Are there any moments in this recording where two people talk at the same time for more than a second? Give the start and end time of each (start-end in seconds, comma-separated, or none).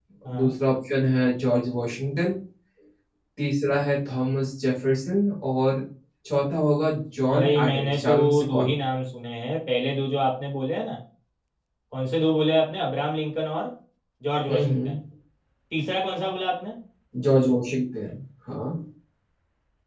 7.3-8.8